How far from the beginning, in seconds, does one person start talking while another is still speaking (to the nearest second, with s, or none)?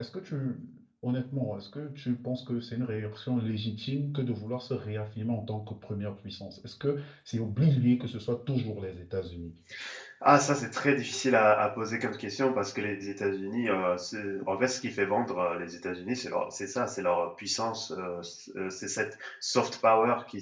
none